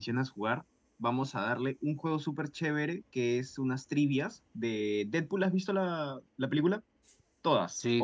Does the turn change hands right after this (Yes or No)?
Yes